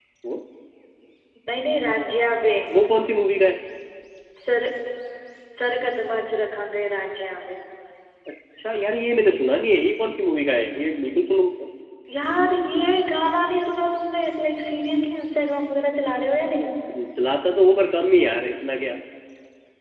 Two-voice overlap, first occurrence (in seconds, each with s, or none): none